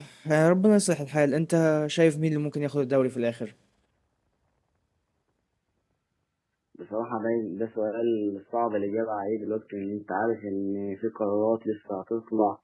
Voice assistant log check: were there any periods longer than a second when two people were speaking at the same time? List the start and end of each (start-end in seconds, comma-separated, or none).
none